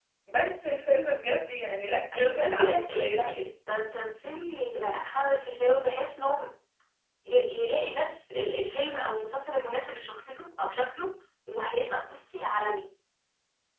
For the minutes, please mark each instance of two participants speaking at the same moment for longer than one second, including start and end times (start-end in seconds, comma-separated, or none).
2.1-3.4